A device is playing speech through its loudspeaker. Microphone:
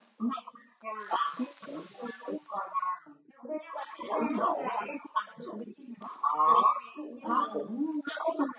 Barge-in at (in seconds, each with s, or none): 7.2 s